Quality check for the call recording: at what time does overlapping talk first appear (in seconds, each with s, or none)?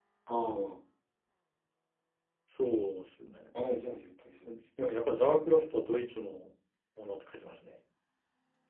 none